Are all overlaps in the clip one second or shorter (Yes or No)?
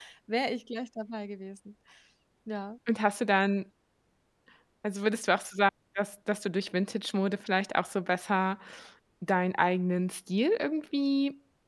Yes